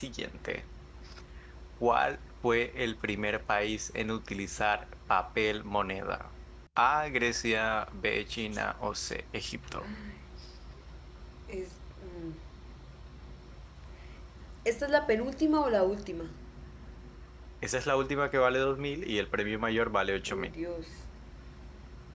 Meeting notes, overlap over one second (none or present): none